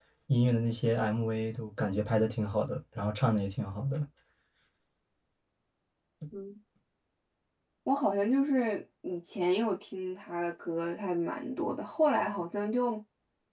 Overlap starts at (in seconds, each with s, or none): none